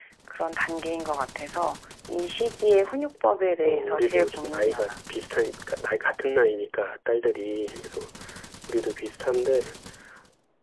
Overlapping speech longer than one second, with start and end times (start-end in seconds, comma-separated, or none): 3.6-4.9